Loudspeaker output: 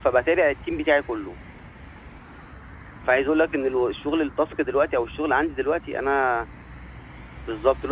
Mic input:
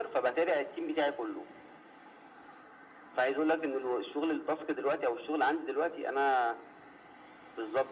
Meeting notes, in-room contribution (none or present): none